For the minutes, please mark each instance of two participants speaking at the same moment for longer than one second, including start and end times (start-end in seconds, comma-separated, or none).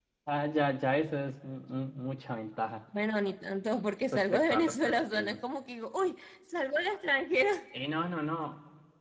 4.1-5.4